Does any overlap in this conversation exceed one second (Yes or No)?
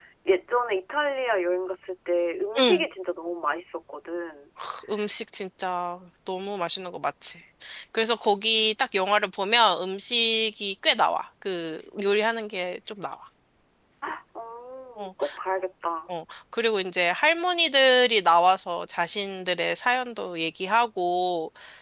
No